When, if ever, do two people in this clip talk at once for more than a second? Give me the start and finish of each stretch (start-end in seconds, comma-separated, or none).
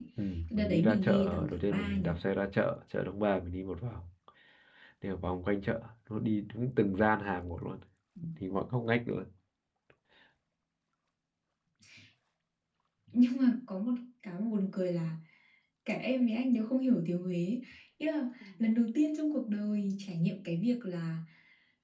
0.6-2.1